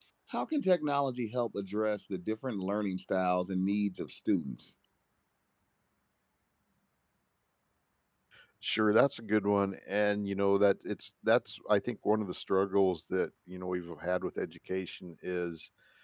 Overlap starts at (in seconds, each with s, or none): none